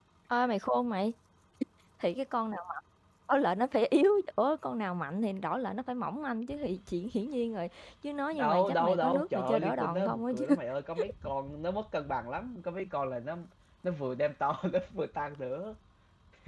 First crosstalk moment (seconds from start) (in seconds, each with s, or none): 8.3 s